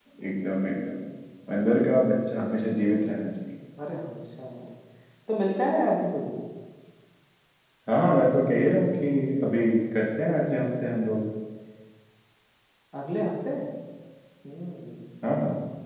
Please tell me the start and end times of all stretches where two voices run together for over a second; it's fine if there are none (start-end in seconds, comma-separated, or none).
none